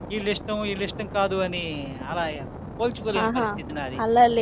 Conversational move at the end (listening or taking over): taking over